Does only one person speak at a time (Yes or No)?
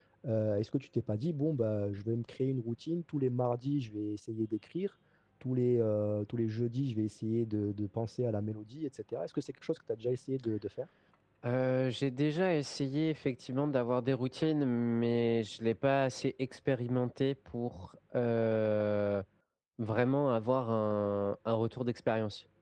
Yes